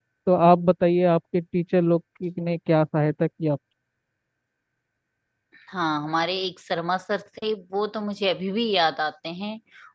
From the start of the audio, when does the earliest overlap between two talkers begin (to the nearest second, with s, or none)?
none